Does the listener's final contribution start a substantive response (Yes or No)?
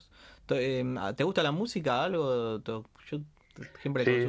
Yes